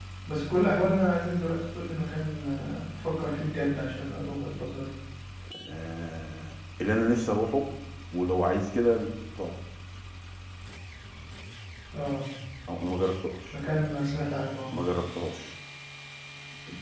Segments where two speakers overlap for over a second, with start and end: none

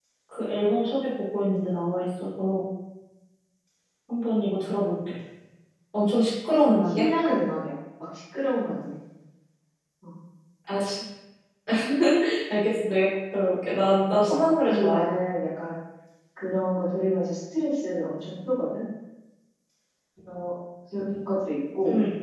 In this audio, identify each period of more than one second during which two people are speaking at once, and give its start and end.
13.8-15.1

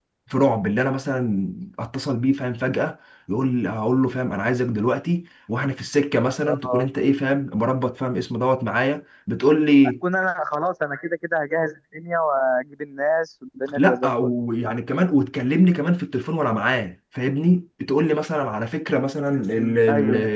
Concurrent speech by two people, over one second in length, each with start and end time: none

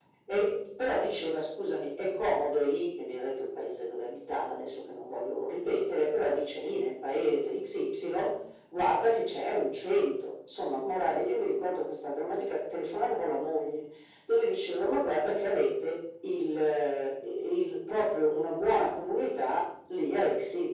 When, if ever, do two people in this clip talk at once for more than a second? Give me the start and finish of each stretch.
none

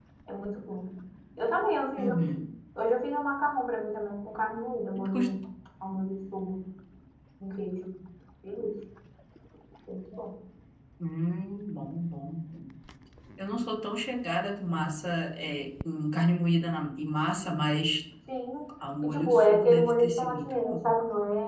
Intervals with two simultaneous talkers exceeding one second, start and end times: 19.0-20.9

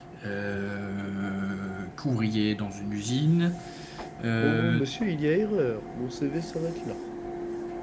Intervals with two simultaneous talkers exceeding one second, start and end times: none

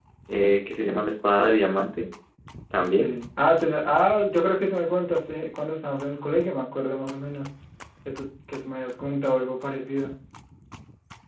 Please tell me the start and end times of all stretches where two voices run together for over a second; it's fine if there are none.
none

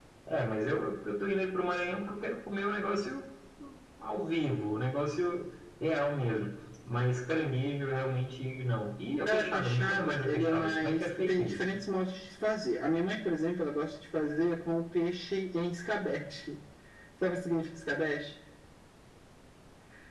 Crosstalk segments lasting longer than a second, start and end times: 9.2-11.6

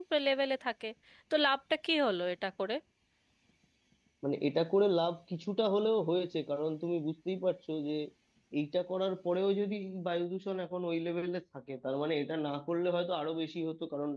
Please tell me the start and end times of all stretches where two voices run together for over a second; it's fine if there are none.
none

